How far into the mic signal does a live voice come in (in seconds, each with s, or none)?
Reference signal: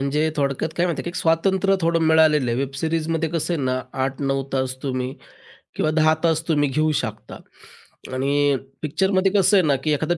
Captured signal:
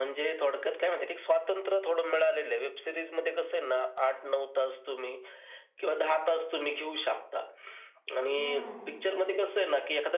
8.4 s